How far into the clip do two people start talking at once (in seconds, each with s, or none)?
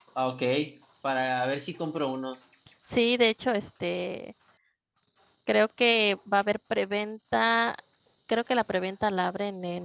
none